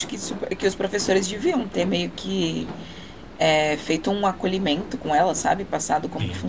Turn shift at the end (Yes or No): Yes